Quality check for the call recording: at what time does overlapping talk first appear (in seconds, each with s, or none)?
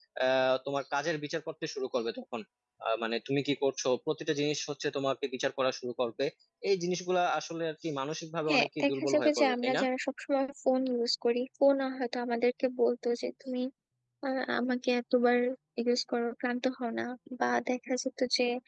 8.5 s